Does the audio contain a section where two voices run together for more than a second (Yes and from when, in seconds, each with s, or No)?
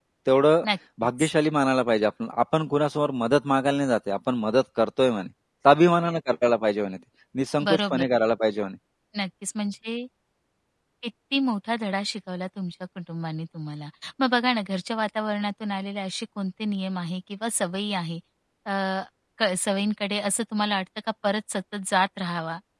No